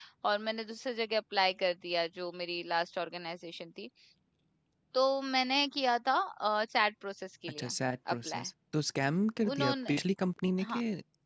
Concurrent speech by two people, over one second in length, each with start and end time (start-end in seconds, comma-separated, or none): none